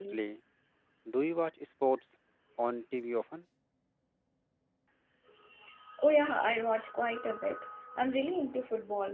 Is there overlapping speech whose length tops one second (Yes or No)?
No